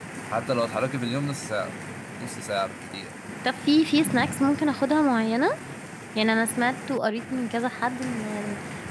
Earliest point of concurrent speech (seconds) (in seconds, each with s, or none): none